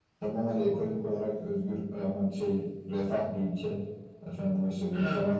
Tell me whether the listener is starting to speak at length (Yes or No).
No